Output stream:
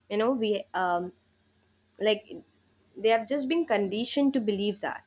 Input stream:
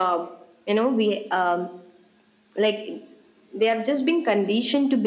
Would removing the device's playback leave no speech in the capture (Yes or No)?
Yes